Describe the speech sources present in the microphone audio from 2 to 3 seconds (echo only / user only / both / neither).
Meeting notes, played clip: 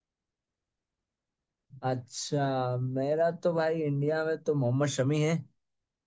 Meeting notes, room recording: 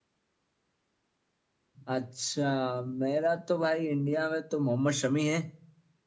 echo only